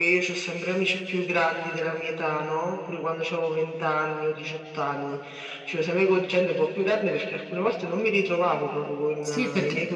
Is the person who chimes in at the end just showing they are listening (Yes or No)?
No